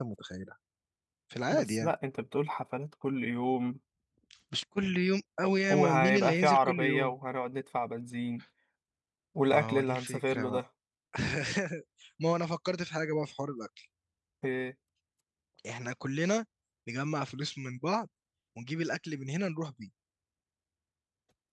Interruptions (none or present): present